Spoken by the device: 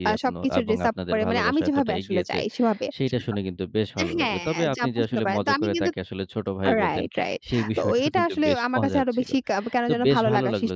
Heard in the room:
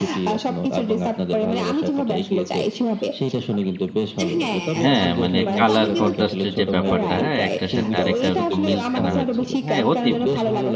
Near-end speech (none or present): present